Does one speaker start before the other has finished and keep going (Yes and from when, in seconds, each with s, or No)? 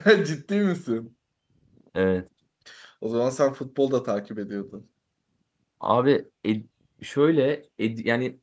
No